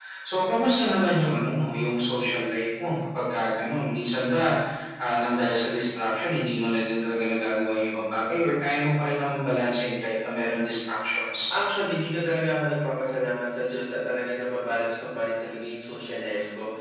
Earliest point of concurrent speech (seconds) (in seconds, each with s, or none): none